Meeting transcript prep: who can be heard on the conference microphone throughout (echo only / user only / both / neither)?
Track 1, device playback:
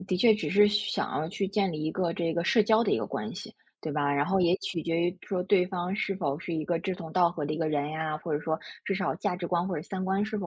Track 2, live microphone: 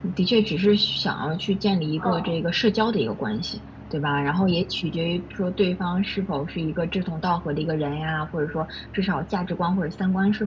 both